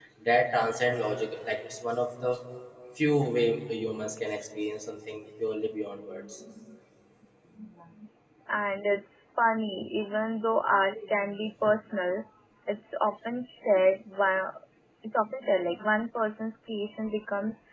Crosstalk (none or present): none